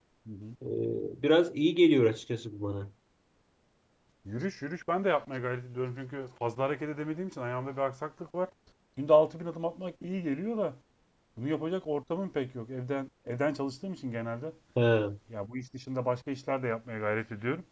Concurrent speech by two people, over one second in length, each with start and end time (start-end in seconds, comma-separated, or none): none